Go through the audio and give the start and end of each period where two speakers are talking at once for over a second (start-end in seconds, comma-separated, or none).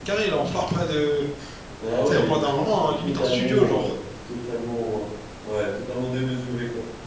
2.0-3.9